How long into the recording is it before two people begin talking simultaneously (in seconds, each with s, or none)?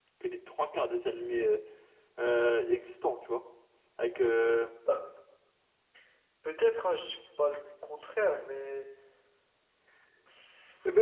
none